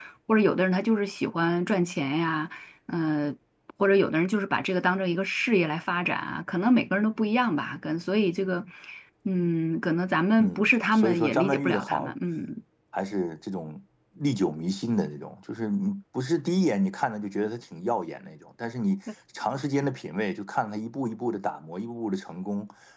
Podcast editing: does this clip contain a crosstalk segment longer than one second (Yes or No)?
Yes